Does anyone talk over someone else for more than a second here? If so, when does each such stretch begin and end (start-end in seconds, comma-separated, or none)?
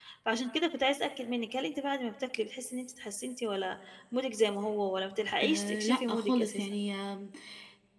5.4-6.8